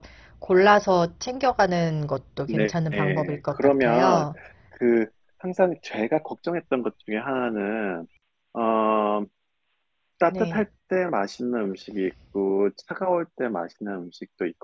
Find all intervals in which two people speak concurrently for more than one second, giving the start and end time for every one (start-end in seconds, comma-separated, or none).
2.5-4.3